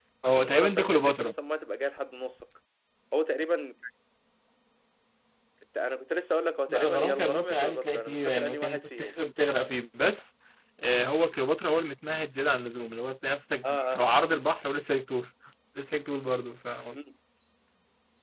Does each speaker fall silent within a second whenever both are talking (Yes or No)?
No